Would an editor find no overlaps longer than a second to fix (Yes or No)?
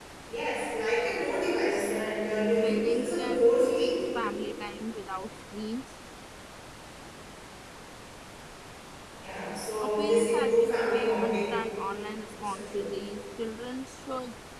No